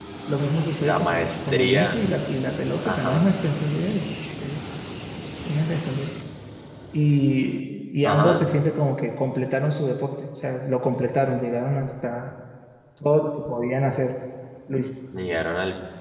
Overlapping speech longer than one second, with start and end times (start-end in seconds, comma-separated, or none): 0.8-2.0